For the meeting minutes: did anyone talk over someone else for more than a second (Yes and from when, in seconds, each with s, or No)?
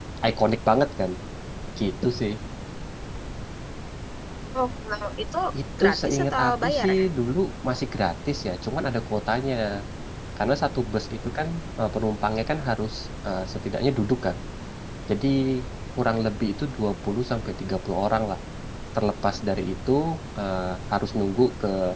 Yes, from 5.8 s